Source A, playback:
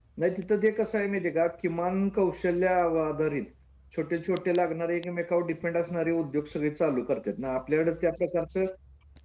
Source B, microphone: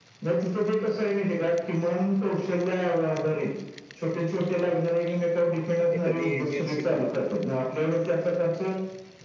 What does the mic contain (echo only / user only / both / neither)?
both